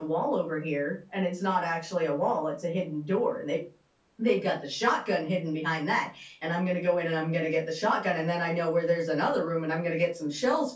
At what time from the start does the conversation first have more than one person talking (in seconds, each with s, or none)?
none